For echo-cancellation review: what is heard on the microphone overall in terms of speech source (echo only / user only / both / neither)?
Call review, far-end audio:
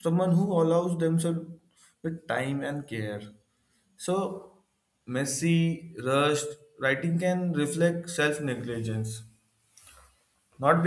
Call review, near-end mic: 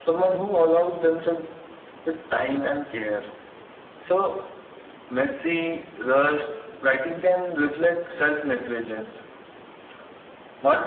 echo only